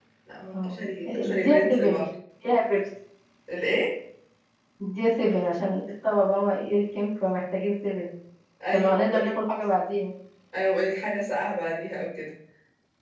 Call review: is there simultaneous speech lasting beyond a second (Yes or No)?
Yes